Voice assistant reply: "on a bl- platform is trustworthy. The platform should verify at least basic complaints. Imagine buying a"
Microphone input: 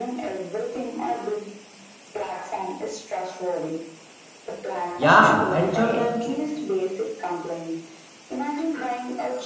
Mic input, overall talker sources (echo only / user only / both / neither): both